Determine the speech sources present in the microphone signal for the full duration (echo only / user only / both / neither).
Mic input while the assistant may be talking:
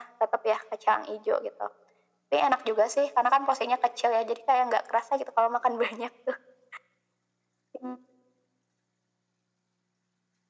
echo only